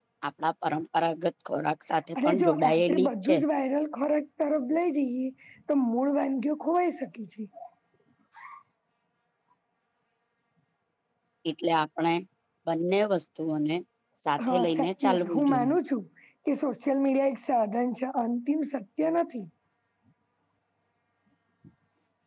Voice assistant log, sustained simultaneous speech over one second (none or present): present